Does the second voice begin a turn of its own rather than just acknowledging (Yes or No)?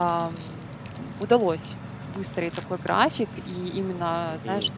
No